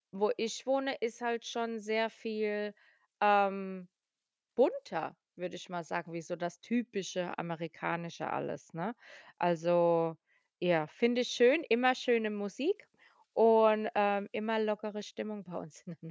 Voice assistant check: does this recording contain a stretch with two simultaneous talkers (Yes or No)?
No